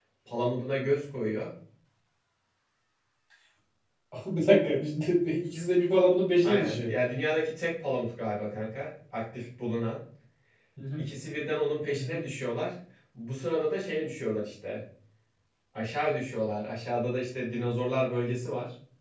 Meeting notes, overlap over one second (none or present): none